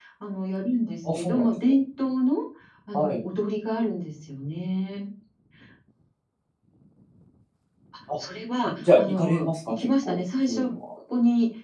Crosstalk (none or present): present